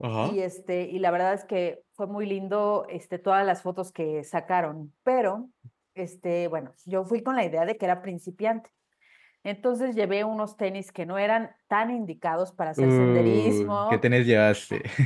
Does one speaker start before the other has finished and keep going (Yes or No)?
Yes